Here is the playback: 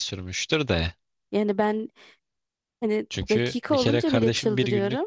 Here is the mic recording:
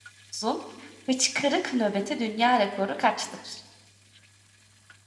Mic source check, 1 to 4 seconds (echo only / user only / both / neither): user only